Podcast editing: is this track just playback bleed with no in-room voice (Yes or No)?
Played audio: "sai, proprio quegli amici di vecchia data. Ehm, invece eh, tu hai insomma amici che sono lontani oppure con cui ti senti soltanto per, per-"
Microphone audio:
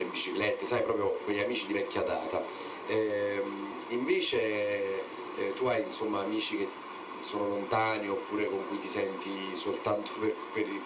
Yes